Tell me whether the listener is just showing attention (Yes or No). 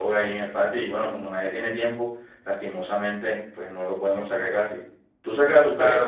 No